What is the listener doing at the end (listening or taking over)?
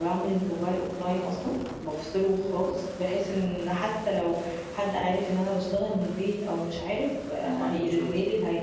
listening